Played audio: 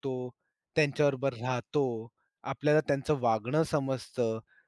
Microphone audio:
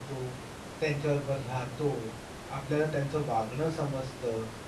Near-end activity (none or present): none